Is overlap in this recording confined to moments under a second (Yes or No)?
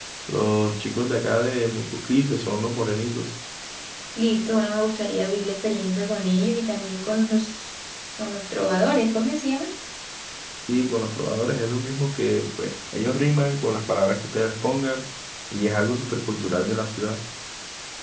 Yes